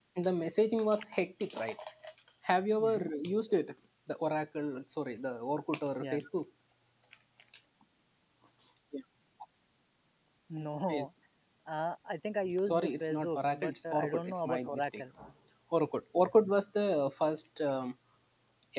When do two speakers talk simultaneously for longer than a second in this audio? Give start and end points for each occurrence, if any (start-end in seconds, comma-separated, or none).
12.7-15.0